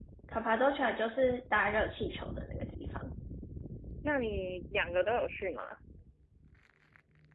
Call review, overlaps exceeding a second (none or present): none